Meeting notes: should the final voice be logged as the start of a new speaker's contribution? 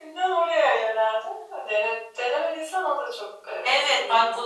Yes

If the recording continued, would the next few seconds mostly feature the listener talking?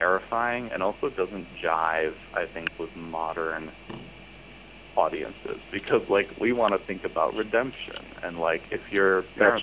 No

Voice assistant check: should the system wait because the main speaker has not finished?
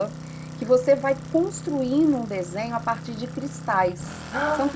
Yes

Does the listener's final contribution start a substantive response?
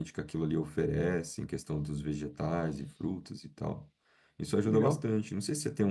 No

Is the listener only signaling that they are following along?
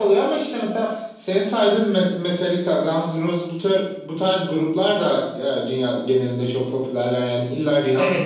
No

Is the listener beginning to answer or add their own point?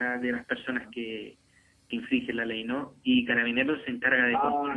Yes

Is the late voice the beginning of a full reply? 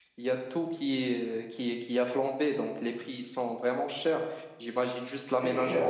No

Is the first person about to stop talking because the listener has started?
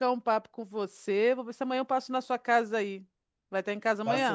Yes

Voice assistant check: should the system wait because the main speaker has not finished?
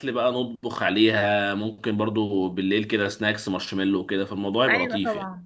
No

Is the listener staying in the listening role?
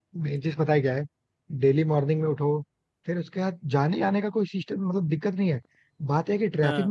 Yes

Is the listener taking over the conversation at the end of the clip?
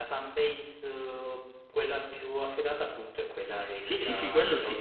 Yes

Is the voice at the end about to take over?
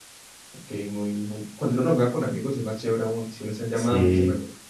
Yes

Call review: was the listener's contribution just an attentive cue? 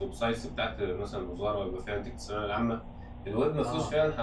Yes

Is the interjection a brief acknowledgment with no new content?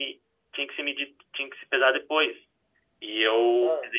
Yes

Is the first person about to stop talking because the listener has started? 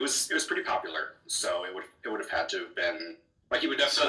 No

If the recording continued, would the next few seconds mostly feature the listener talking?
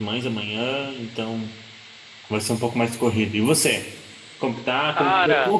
No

